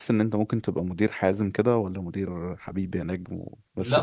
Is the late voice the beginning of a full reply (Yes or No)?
Yes